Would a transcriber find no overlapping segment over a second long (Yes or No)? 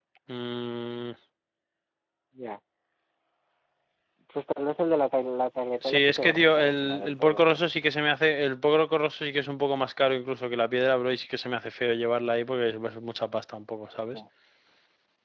No